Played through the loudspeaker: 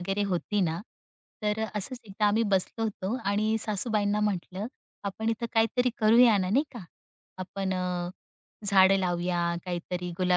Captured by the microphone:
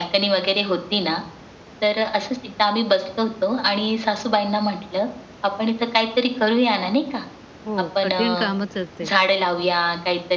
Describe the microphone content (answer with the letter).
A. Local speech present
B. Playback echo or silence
A